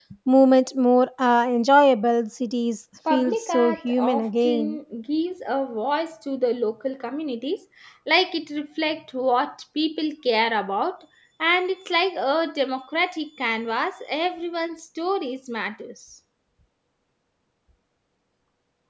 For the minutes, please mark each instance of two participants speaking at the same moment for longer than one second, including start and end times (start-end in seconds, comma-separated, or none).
3.1-4.8